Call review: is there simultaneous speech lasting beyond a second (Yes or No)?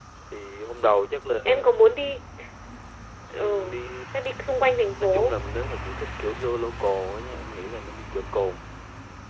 No